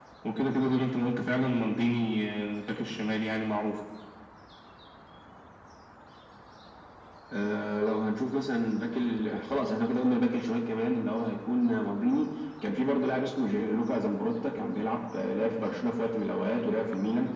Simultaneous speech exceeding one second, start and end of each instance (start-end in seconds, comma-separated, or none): none